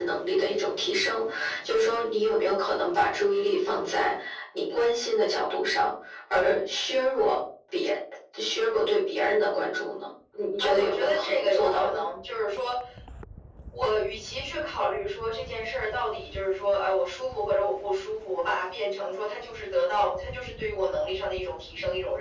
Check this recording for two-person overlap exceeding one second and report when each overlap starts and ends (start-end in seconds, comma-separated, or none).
10.6-12.0